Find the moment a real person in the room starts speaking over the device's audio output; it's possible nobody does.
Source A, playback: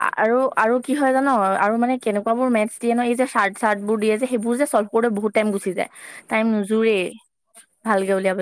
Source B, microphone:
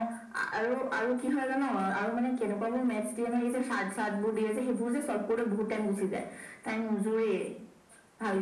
none

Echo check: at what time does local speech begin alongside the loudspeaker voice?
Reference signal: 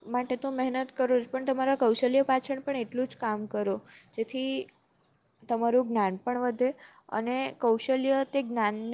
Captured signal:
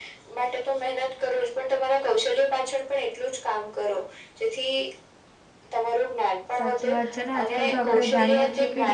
6.6 s

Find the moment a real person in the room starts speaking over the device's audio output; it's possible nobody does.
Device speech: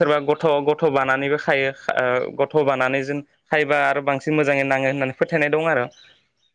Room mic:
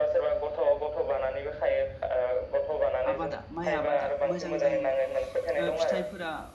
3.1 s

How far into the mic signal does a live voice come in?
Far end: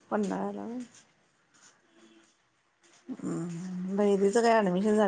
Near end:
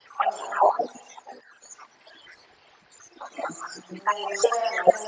none

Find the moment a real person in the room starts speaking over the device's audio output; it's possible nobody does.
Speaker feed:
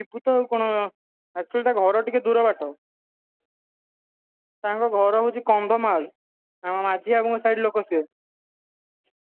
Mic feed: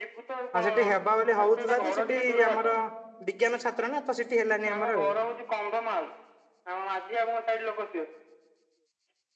0.6 s

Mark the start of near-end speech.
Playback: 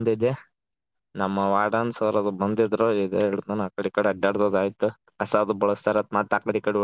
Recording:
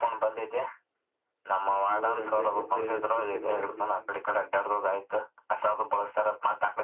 1.6 s

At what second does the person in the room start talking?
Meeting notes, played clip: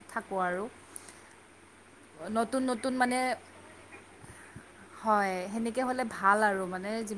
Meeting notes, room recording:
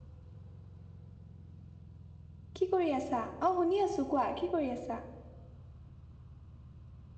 2.6 s

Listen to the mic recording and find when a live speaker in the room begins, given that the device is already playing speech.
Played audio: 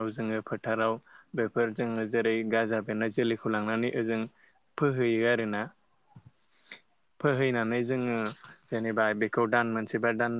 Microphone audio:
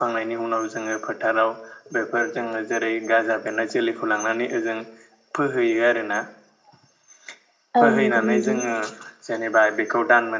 7.8 s

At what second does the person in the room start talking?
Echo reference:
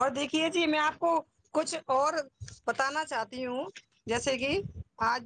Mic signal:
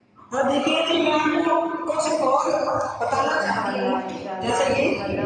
3.4 s

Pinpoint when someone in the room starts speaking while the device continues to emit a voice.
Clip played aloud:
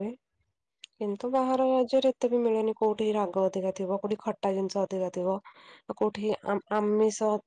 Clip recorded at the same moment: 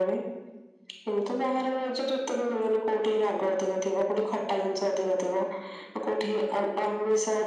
none

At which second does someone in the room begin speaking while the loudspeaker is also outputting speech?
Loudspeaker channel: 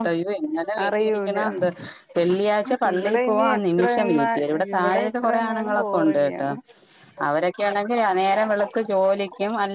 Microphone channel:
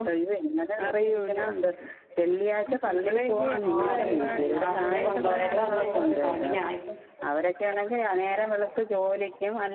3.7 s

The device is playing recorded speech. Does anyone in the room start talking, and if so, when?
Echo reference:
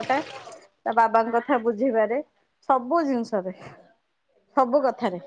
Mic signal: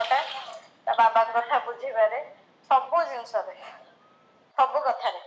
none

